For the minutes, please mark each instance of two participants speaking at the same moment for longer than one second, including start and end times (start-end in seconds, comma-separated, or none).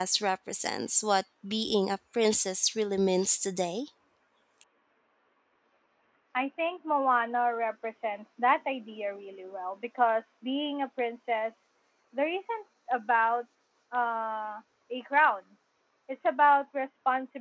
none